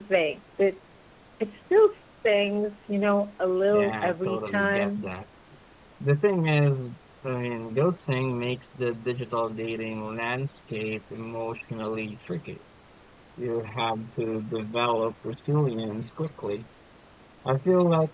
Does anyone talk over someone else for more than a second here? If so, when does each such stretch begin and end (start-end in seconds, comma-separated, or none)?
3.7-5.1